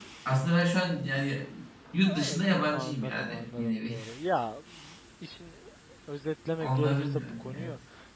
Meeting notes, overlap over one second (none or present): present